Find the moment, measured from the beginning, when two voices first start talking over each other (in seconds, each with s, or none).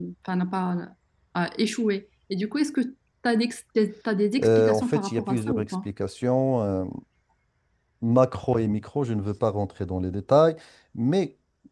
4.4 s